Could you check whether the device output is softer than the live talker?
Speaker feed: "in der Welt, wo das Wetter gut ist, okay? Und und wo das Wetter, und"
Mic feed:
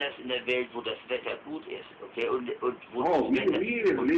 Yes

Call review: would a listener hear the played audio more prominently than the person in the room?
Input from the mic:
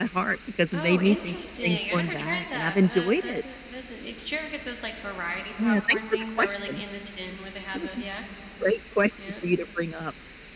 Yes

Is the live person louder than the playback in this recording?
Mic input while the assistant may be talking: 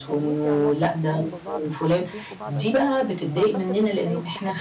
No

